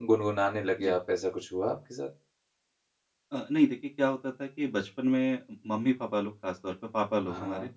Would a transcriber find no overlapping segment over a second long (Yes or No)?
Yes